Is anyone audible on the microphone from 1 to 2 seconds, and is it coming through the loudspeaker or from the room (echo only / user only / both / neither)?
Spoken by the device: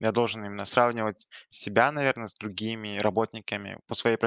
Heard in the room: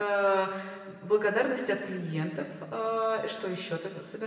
user only